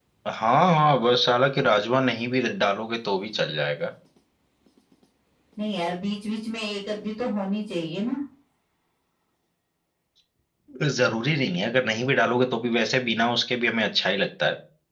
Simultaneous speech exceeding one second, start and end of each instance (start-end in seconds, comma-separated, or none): none